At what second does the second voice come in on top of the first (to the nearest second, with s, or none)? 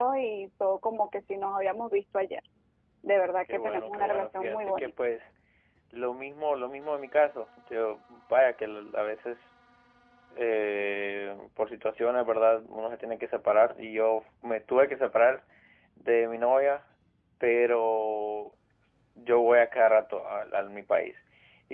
4 s